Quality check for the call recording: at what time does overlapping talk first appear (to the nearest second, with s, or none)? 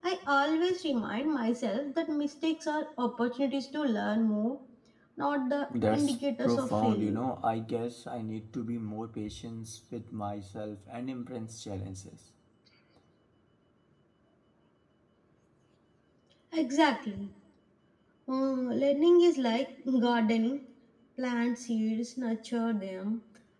6 s